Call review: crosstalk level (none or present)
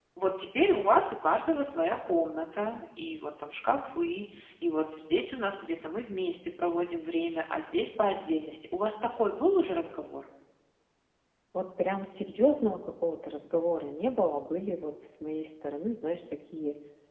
none